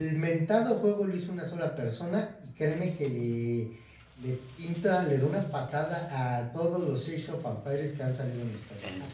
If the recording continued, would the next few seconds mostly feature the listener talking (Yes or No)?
No